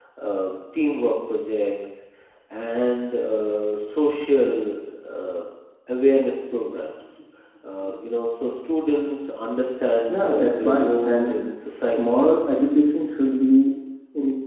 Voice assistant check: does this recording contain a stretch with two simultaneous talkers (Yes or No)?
Yes